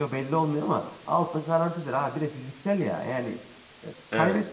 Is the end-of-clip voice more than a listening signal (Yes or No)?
No